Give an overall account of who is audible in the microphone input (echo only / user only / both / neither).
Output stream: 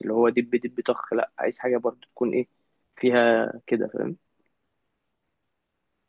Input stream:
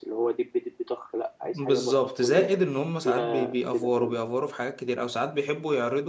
both